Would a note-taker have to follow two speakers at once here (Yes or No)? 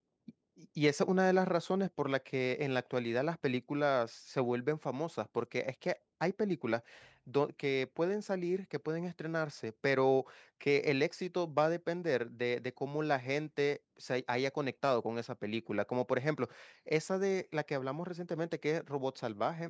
No